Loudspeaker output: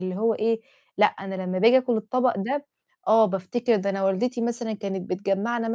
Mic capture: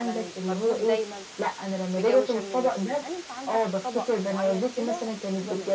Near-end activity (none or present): present